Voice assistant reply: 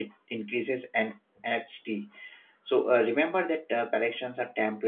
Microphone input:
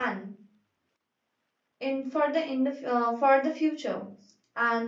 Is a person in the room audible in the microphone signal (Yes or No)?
Yes